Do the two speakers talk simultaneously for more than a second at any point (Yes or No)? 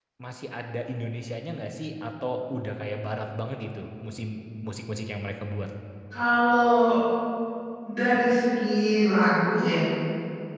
No